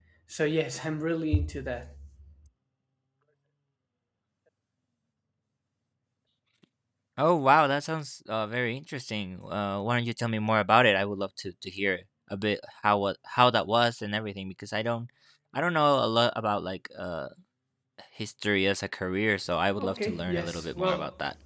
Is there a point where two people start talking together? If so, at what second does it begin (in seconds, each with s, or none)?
19.7 s